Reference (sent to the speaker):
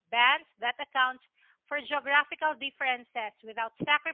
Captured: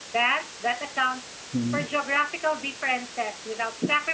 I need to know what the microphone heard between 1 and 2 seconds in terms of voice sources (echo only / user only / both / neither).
both